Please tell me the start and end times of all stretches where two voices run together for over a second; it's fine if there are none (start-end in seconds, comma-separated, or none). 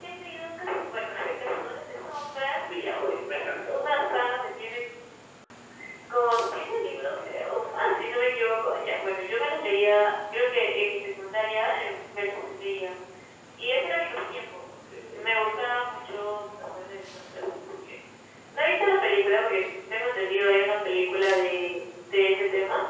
2.7-3.9